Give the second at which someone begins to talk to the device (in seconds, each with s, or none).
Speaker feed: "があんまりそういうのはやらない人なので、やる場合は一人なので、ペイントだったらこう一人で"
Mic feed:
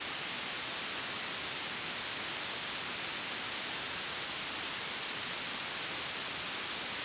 none